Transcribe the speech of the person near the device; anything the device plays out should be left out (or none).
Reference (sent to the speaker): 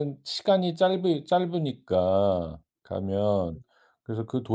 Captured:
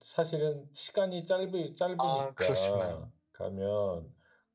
아 그러시구나.